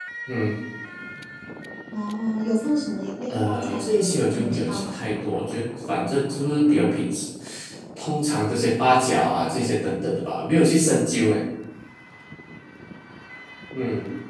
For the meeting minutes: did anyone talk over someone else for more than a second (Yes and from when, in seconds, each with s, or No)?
Yes, from 3.3 s